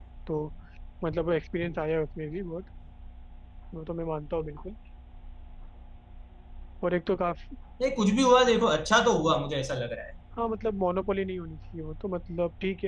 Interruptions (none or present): none